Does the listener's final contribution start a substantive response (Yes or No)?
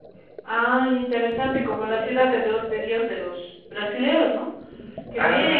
No